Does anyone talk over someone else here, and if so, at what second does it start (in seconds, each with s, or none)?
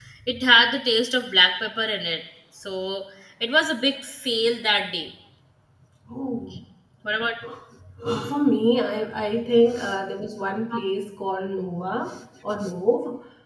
none